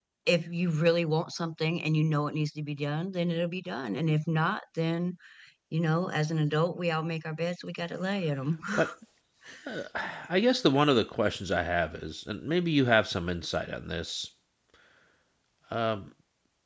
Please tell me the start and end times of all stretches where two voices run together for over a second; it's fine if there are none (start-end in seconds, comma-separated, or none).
none